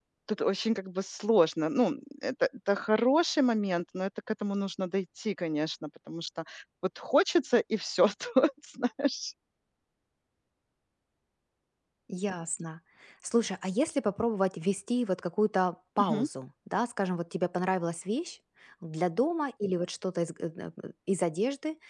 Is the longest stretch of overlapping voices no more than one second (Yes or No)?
Yes